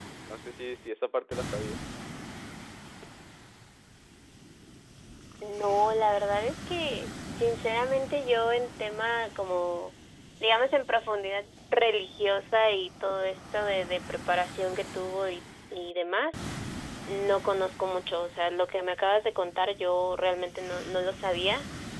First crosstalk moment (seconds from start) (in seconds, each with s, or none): none